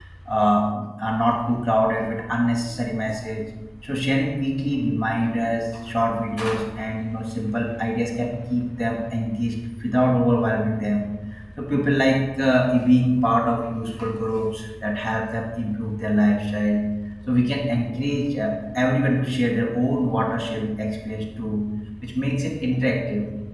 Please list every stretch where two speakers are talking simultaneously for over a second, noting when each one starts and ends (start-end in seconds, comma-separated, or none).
none